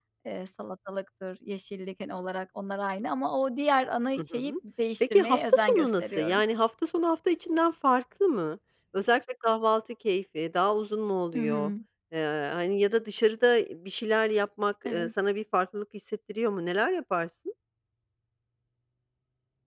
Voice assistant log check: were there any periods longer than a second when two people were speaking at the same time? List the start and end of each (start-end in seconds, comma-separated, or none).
5.0-6.4